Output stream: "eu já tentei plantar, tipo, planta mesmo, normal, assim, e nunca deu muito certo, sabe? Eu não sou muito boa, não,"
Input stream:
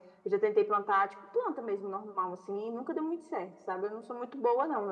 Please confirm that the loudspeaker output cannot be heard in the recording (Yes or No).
No